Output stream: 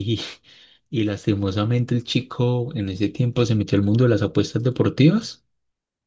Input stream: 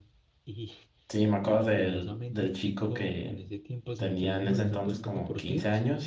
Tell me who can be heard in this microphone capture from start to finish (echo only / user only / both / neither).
both